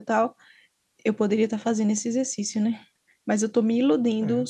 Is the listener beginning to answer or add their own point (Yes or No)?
No